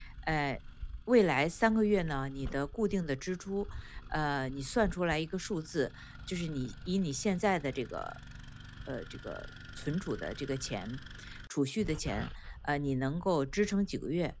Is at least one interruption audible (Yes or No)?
No